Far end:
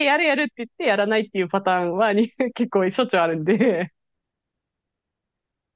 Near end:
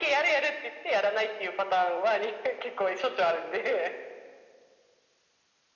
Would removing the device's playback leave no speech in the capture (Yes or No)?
Yes